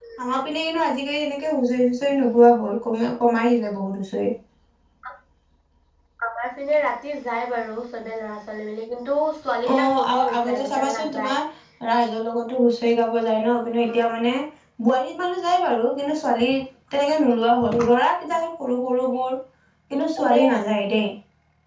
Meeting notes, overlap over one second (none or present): present